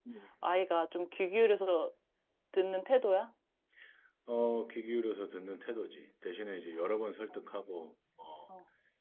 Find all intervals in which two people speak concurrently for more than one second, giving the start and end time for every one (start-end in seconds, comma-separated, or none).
none